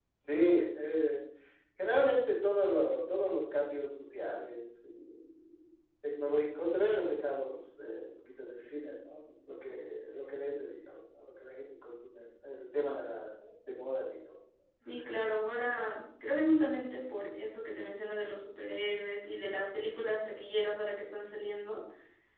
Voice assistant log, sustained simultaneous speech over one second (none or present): none